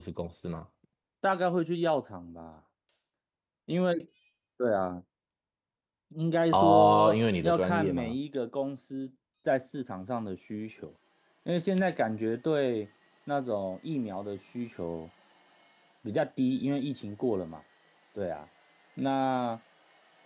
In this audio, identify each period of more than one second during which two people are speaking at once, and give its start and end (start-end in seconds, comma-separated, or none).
6.5-8.1